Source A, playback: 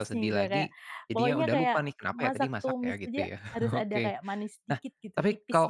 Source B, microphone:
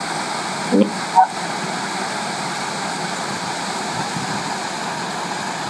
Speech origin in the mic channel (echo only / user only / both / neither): user only